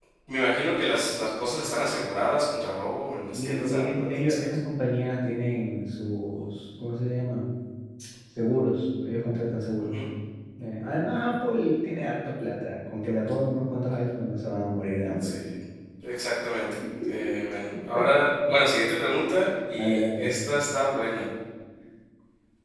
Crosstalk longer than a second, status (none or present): present